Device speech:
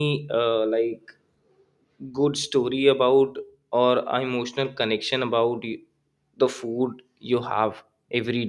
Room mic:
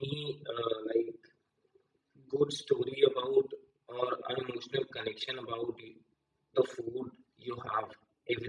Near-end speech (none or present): none